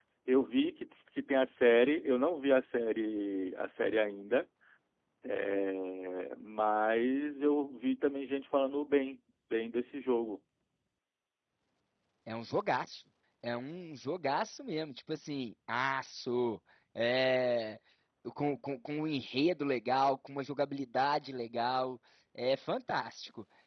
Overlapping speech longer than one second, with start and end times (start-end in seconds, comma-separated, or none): none